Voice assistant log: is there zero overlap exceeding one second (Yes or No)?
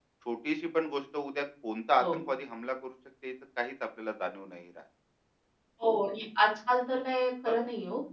Yes